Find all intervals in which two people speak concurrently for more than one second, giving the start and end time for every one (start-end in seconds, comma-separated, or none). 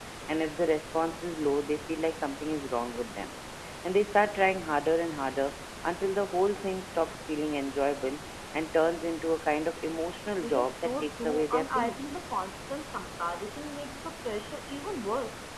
10.4-12.1